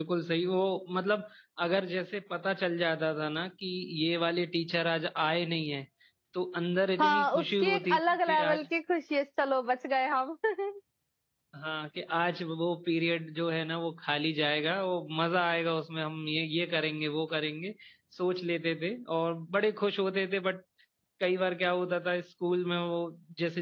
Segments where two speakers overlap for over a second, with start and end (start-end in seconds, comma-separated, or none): 7.0-8.7